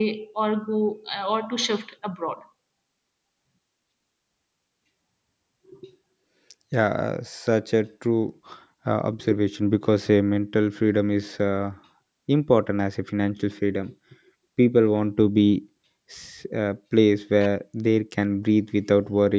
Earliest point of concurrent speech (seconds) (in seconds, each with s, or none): none